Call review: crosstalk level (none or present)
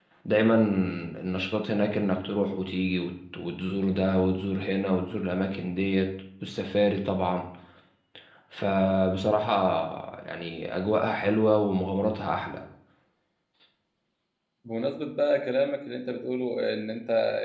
none